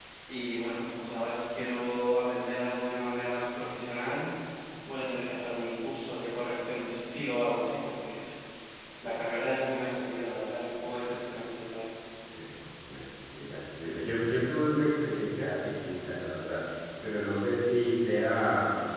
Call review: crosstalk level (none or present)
none